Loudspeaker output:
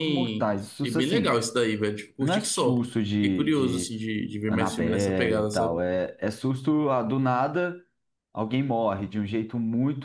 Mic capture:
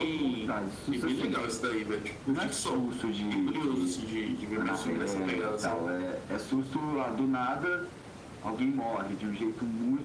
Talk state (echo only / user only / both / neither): echo only